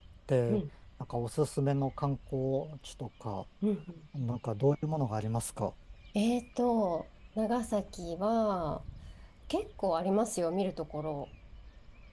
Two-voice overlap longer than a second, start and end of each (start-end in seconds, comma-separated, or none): none